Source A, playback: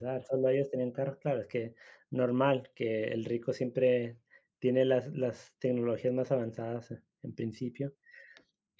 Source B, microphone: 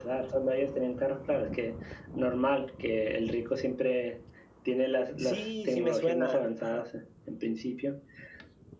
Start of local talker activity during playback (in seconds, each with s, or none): 5.2 s